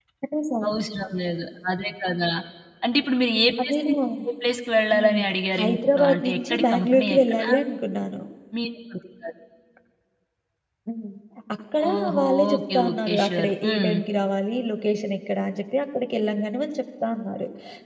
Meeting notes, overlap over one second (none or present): present